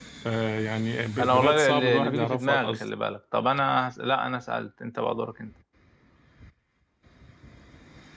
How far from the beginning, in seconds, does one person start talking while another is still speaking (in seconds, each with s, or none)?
1.2 s